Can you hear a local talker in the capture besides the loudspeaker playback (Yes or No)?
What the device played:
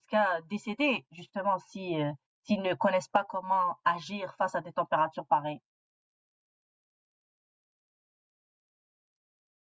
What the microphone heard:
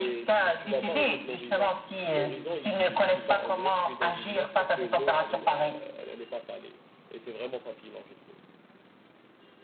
Yes